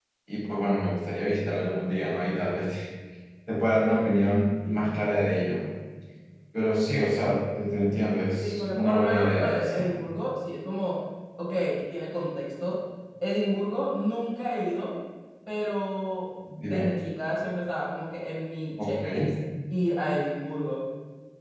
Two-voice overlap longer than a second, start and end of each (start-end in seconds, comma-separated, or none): 8.4-9.9